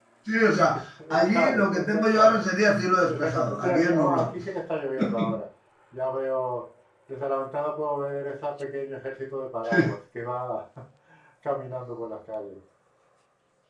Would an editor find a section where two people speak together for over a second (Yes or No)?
Yes